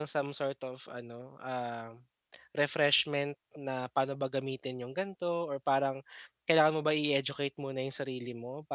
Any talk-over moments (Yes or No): No